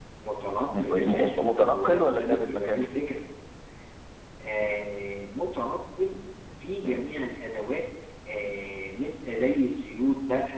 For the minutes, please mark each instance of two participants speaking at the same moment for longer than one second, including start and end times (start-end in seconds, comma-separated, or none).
0.8-2.9